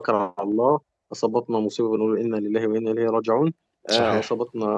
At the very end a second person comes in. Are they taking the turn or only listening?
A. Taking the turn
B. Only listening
B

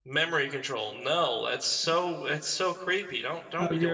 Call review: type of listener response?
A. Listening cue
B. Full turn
B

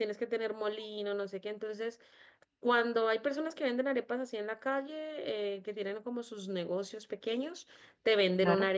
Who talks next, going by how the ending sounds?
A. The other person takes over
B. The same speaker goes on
B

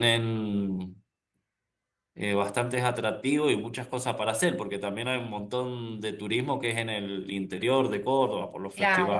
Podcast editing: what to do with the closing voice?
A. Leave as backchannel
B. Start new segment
B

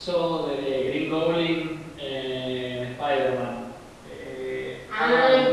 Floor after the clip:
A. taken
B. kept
A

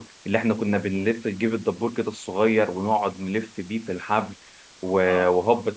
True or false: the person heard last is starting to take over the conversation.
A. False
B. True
A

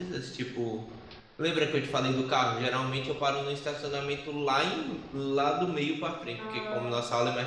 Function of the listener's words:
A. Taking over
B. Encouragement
B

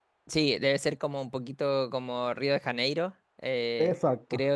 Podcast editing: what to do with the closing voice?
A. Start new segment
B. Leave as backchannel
B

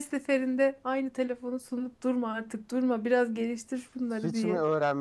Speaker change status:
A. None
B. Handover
B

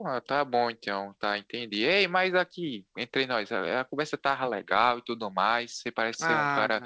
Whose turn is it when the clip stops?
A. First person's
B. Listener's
A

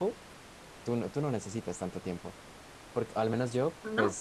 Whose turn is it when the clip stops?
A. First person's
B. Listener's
A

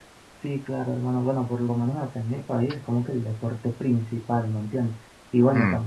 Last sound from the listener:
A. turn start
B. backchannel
B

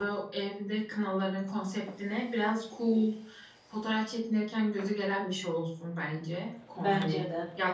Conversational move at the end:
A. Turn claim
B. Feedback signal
B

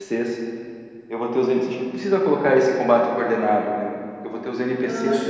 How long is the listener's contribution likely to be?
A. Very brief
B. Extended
B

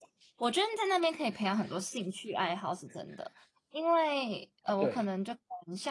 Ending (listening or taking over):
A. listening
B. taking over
A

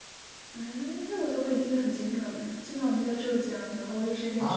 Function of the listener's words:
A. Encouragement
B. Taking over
B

